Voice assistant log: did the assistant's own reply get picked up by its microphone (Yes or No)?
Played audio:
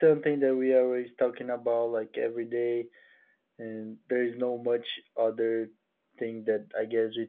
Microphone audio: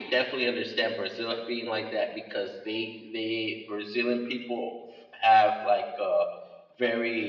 No